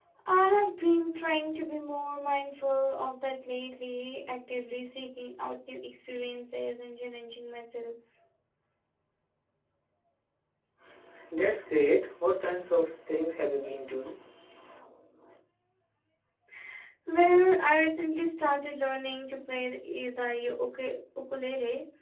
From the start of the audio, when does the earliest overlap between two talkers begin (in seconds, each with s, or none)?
none